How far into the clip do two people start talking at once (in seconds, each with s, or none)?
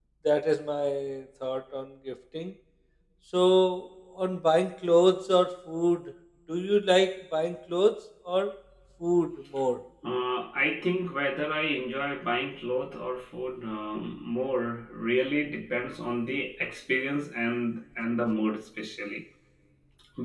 none